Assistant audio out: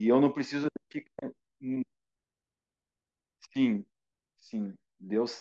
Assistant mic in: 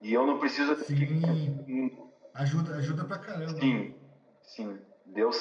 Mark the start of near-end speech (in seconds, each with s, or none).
0.7 s